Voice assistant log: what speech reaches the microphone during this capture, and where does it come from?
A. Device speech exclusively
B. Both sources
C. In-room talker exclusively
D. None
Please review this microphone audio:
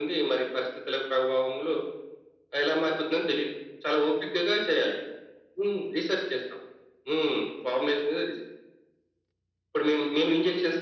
A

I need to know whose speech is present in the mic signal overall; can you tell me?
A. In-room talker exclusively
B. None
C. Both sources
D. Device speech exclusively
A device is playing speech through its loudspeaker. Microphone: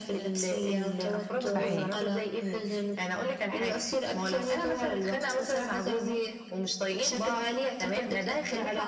C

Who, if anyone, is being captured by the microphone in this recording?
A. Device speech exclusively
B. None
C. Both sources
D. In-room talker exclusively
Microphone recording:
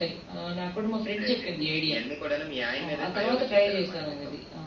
A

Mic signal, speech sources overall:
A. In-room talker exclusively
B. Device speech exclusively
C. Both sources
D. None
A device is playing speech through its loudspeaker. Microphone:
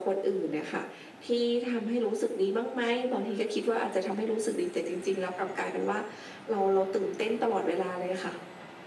B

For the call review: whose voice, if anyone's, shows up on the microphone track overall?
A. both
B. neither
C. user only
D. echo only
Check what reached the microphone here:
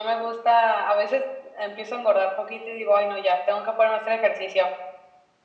D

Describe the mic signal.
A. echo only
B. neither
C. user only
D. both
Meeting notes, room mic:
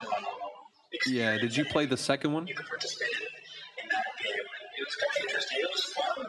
D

